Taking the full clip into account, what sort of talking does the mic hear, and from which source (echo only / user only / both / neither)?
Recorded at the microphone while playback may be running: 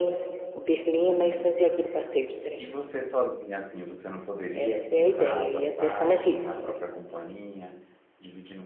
both